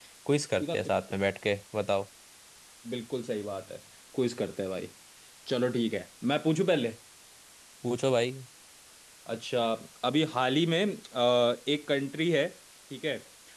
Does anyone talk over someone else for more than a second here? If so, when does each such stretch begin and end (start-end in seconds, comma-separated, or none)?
none